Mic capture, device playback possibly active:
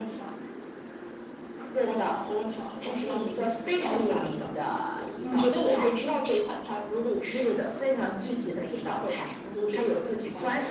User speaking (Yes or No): Yes